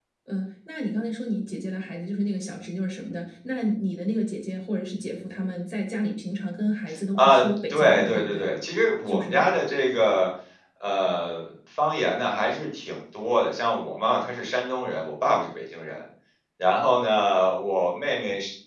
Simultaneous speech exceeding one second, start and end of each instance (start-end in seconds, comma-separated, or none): 7.2-8.5